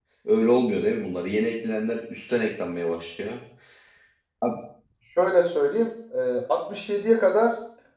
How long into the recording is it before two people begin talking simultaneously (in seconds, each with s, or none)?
none